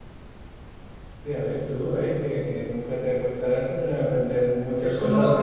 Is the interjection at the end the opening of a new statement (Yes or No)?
Yes